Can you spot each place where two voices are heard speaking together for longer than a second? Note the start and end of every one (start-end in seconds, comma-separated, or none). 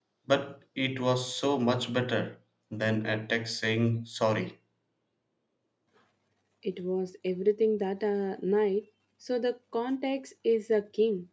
none